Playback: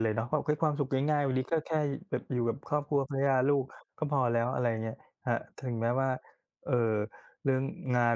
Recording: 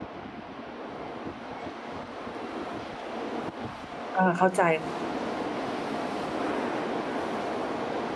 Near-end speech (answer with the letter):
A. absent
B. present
B